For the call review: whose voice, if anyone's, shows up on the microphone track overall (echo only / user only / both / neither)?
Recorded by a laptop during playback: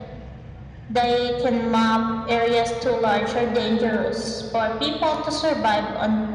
echo only